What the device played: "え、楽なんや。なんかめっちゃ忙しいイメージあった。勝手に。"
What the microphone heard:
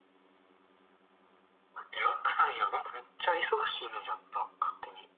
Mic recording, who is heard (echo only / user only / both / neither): echo only